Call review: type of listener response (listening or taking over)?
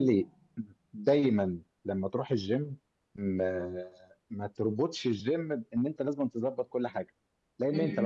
listening